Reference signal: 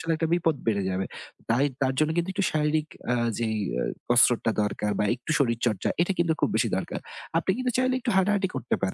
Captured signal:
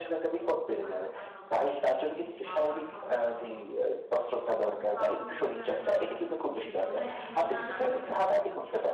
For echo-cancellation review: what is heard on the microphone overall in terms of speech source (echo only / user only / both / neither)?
both